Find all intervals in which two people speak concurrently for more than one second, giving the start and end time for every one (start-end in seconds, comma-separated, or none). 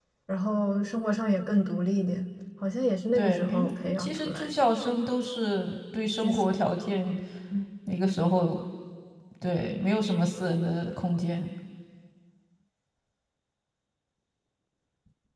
3.1-4.5